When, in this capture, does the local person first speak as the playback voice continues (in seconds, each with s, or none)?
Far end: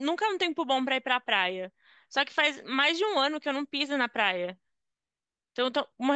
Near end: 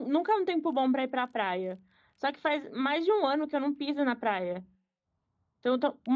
none